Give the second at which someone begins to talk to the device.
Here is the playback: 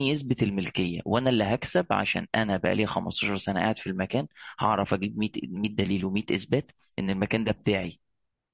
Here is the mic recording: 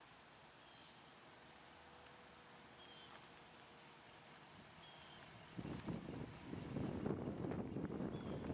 none

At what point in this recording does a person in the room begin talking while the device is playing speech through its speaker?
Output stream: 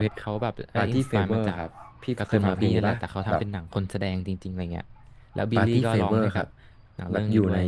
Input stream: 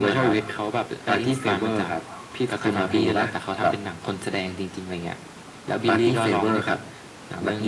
none

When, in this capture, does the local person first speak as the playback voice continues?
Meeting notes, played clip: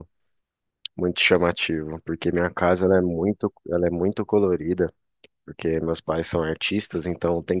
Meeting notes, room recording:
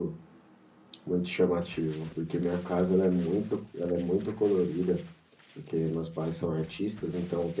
none

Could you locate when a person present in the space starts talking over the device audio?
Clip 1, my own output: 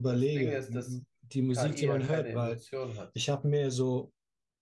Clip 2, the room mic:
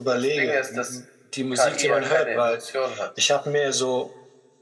none

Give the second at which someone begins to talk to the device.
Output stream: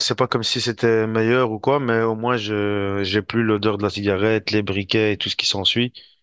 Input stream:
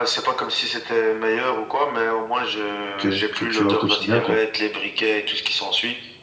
3 s

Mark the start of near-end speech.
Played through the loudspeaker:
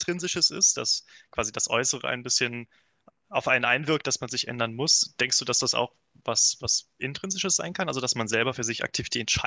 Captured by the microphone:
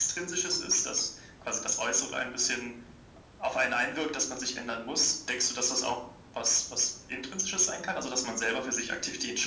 none

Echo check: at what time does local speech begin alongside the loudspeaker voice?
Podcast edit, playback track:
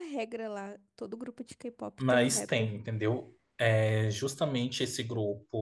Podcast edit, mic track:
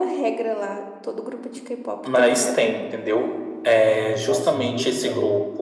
4 s

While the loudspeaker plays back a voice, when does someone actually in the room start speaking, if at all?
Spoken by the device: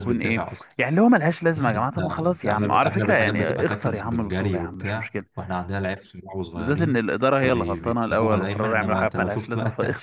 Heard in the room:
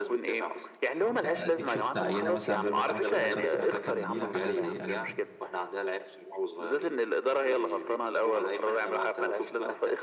1 s

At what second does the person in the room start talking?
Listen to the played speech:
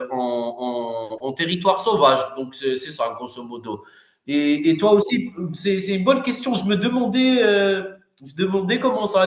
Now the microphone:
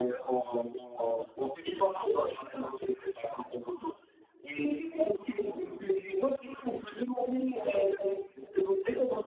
none

